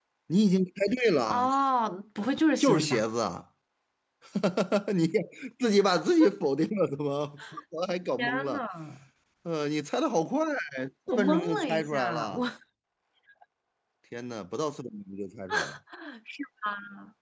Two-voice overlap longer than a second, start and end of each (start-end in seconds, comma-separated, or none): 11.1-12.4